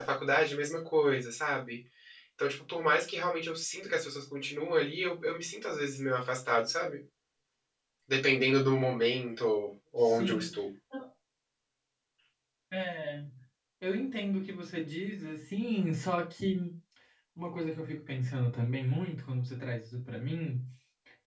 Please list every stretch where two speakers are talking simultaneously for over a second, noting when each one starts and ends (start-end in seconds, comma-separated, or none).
none